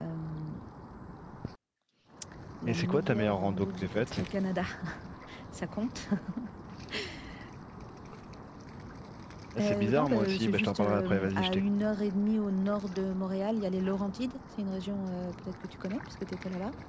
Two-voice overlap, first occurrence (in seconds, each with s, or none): 2.7 s